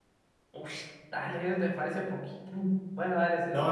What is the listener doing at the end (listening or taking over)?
taking over